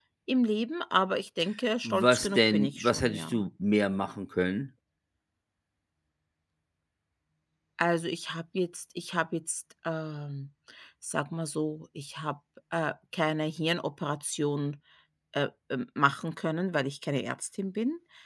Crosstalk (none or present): present